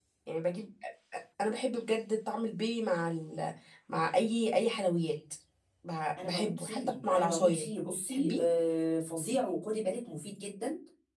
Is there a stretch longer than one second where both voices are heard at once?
Yes, from 6.2 s

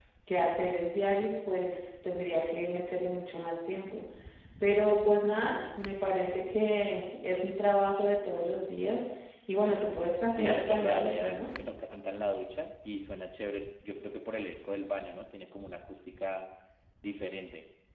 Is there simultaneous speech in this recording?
Yes, from 10.3 s

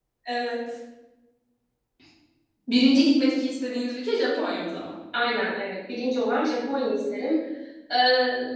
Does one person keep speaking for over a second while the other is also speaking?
No

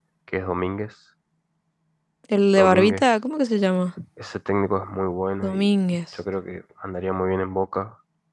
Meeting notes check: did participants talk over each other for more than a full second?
No

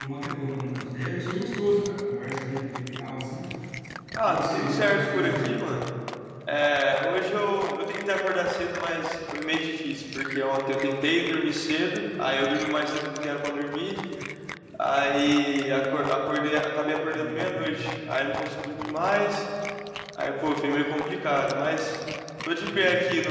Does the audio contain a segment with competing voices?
Yes, from 4.2 s

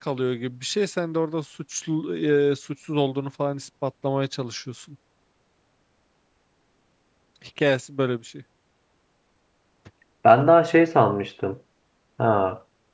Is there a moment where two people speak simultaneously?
No

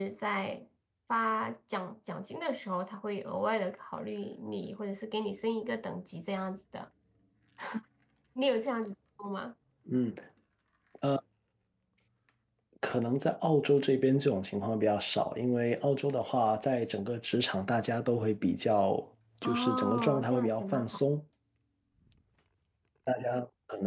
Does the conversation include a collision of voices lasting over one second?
Yes, from 19.4 s

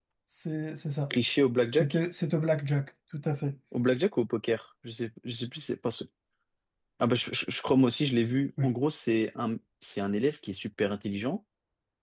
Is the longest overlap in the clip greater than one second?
No

